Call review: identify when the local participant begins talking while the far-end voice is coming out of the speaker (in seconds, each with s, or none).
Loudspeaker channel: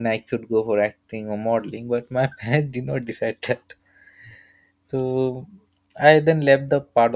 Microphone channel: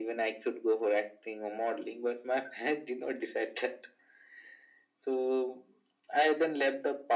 none